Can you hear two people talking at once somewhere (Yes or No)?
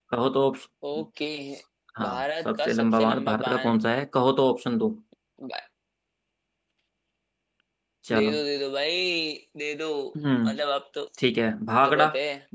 Yes